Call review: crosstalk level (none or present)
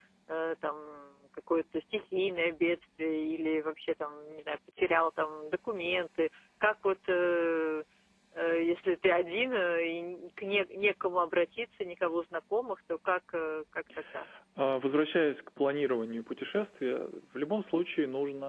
none